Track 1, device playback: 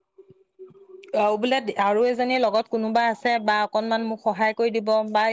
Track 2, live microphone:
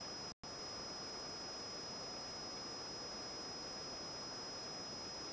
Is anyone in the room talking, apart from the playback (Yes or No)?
No